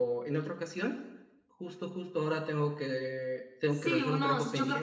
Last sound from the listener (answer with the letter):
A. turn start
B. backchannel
A